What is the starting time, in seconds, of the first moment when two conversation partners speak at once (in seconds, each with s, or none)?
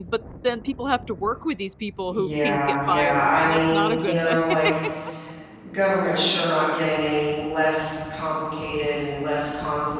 2.1 s